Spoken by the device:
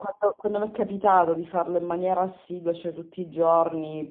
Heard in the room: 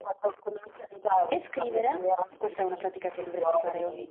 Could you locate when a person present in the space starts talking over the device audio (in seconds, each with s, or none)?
1.3 s